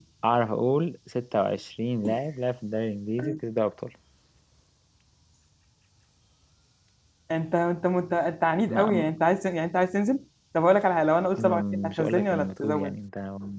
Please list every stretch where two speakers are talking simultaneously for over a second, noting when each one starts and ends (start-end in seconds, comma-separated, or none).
11.4-12.9